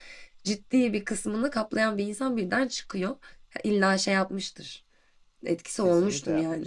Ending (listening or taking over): taking over